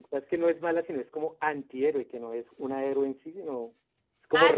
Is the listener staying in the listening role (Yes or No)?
No